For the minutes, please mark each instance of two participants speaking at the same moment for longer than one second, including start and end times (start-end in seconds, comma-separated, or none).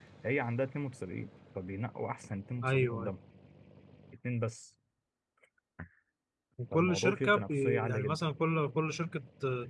6.7-8.3